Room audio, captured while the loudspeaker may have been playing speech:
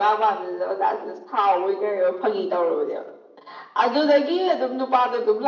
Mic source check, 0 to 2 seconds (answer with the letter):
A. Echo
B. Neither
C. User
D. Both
A